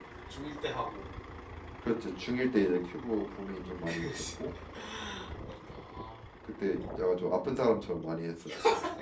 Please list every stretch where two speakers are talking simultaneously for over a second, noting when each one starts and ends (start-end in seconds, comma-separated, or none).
none